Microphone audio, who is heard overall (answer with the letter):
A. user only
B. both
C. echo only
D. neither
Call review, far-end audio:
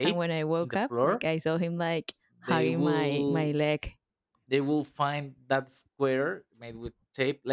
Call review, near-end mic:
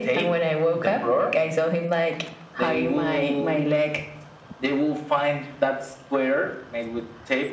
C